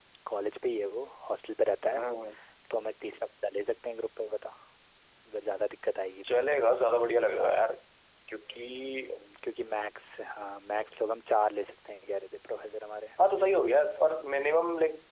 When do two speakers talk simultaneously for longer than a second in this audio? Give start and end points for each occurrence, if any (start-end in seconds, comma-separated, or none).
none